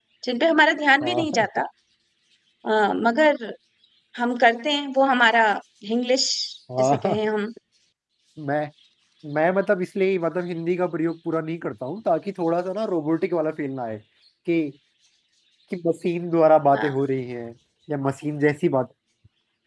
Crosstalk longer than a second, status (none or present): none